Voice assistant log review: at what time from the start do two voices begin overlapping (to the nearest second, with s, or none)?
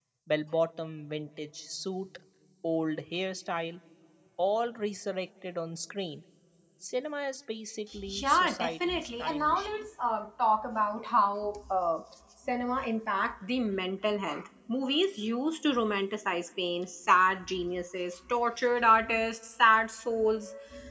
8 s